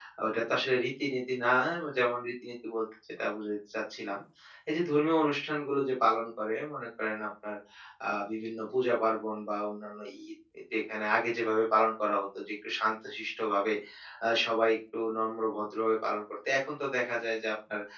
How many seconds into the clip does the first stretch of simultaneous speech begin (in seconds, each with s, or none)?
none